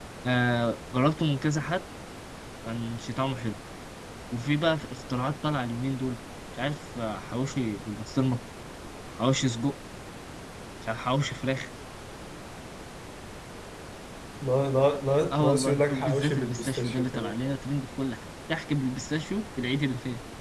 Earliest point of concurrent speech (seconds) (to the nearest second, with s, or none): 15 s